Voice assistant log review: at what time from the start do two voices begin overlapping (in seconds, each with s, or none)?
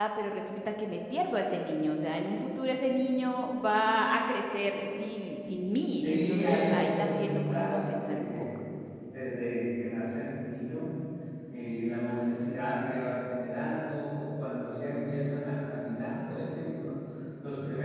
6.0 s